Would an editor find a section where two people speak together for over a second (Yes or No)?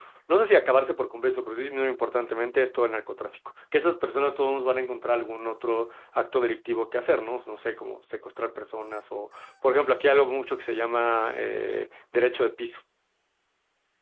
No